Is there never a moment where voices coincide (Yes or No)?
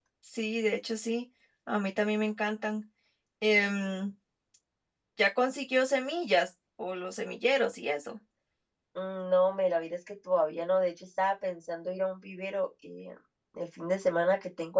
Yes